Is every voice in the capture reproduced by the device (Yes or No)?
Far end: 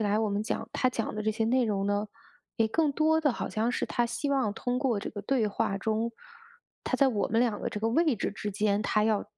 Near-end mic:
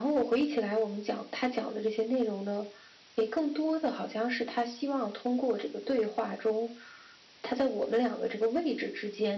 Yes